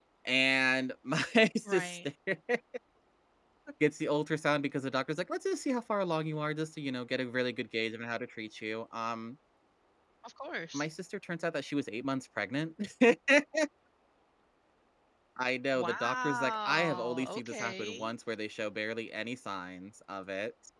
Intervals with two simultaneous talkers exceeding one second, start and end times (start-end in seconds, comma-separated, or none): 15.7-18.1